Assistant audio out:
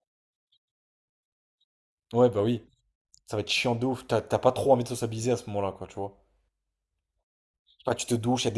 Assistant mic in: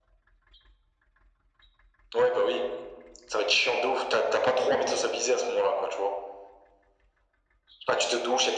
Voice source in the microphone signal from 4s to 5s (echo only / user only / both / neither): echo only